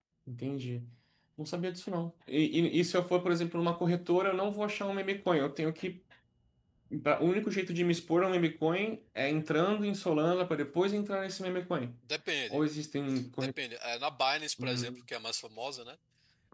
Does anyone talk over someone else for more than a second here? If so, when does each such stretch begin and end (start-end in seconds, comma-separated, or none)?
none